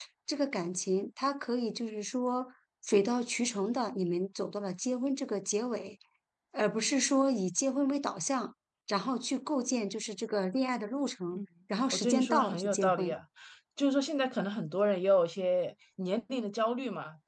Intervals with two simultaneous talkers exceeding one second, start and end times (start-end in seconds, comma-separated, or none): 11.9-13.2